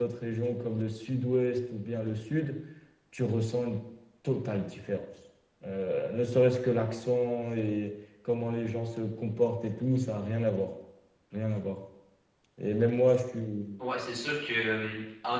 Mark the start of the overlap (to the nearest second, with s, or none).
none